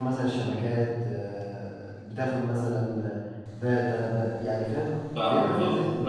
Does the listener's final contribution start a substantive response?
Yes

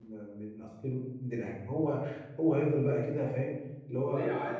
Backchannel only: No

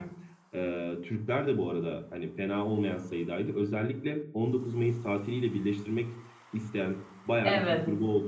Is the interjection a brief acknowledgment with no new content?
Yes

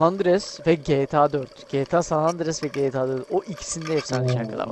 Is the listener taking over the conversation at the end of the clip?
Yes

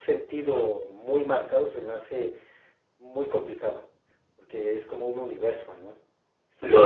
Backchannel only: Yes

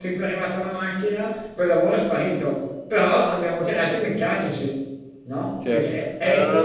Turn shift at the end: Yes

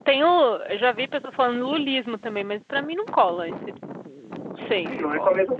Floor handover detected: Yes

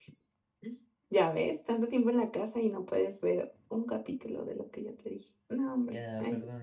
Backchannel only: No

